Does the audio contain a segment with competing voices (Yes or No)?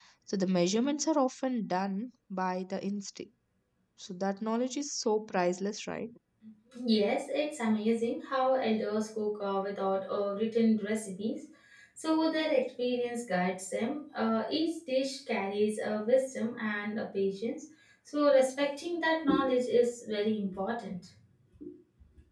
No